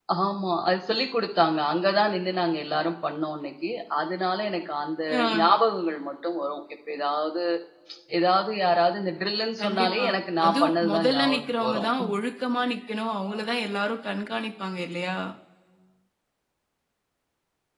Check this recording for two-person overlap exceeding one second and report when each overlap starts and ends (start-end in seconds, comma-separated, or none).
10.4-11.9